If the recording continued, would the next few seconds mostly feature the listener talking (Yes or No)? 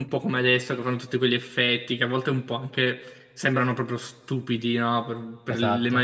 No